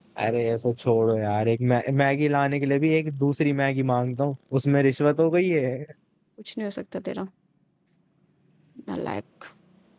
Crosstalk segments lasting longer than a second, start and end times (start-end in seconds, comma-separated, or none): none